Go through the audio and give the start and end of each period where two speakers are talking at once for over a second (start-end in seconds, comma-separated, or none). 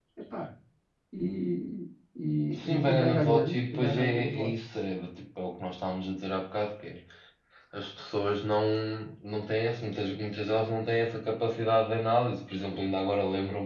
2.5-4.5